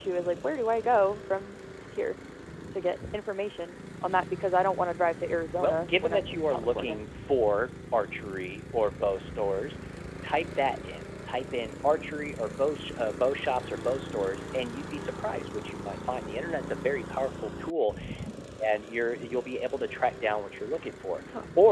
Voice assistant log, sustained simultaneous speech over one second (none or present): present